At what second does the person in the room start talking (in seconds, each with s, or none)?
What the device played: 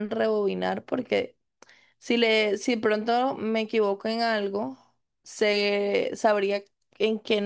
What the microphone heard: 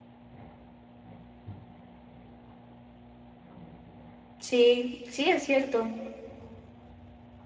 4.4 s